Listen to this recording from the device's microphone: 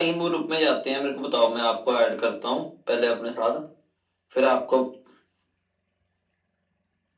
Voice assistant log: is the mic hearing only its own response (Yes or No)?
Yes